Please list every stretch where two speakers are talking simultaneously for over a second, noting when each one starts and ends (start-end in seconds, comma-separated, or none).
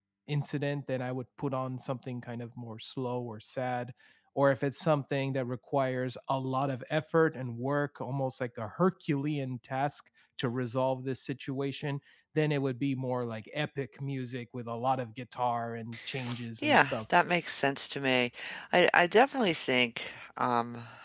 none